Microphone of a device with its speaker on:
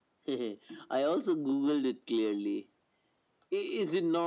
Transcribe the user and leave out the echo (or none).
none